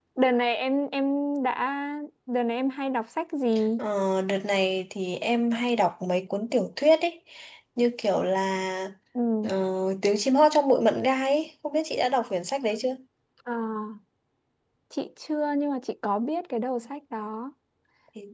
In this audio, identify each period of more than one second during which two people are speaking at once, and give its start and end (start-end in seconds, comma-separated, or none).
none